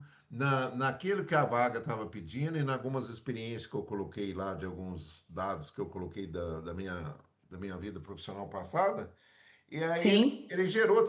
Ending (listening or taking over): listening